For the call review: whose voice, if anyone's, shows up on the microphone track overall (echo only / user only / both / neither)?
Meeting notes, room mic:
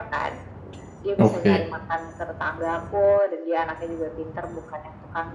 both